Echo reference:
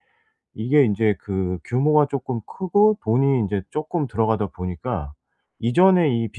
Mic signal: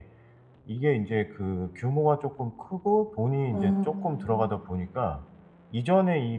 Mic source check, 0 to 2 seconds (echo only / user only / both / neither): echo only